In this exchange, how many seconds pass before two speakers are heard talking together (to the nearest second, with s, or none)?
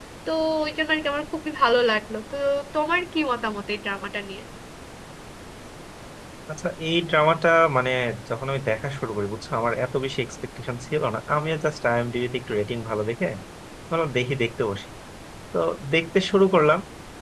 none